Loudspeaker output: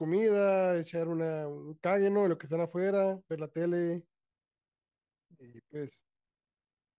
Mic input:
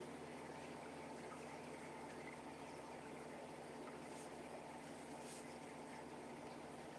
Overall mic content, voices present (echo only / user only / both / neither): neither